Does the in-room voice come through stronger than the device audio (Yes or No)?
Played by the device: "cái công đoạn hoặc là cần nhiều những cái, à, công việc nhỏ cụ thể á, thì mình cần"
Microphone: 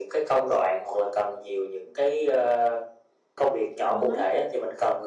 No